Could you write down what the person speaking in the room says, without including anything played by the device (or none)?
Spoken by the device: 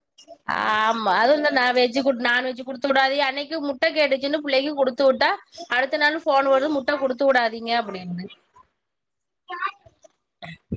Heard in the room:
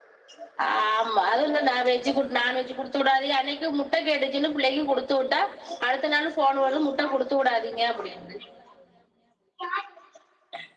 none